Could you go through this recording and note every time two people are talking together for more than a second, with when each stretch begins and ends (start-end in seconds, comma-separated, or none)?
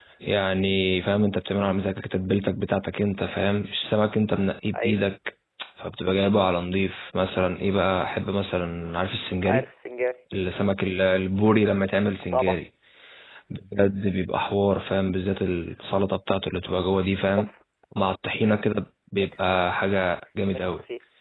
none